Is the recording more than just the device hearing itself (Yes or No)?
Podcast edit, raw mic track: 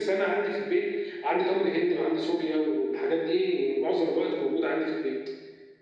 No